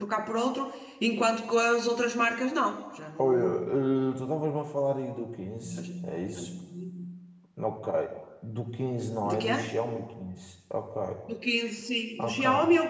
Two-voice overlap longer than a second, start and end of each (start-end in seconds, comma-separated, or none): none